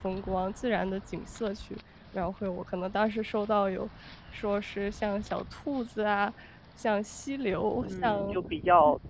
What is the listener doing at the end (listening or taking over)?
taking over